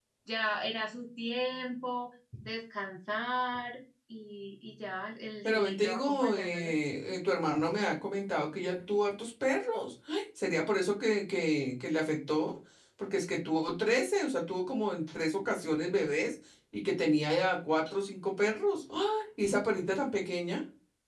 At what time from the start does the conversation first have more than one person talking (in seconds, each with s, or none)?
5.4 s